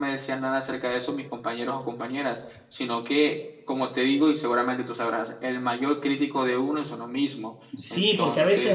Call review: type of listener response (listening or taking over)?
taking over